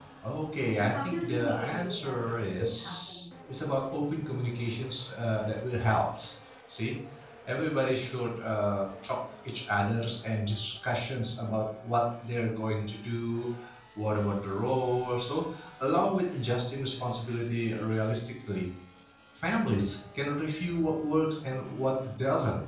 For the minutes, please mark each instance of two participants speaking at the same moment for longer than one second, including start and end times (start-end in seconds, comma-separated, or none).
0.7-3.3